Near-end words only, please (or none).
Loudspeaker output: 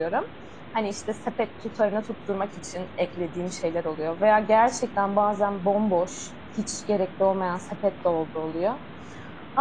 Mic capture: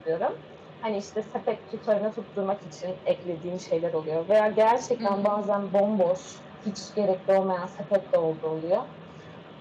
Hı hı.